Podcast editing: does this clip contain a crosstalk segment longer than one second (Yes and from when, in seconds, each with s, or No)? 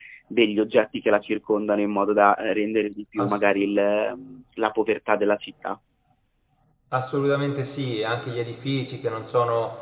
No